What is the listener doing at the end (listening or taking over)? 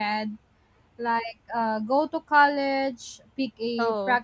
listening